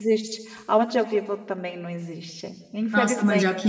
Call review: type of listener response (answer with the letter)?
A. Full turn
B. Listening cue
A